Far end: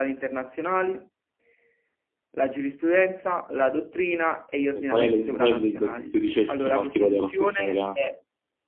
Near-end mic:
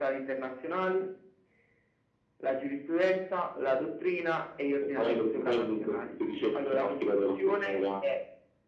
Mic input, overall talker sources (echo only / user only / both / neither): echo only